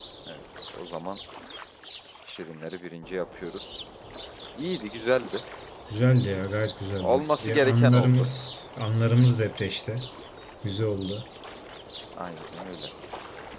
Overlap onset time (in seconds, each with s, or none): 7.0 s